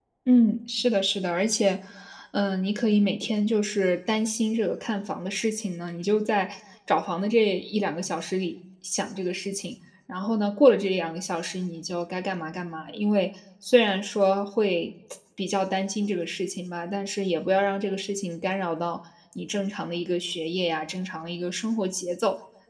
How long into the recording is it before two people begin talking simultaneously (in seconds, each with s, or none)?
none